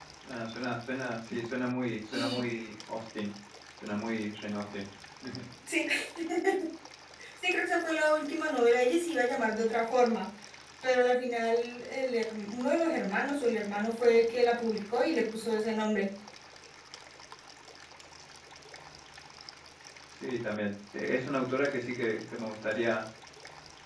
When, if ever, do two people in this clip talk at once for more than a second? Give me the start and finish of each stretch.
none

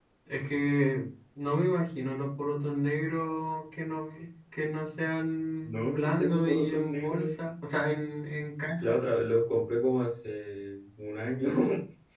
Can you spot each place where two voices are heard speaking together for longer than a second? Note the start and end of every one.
5.6-7.3

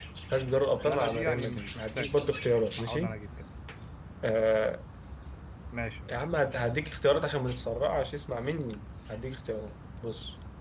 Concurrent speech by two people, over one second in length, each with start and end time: 0.8-2.2

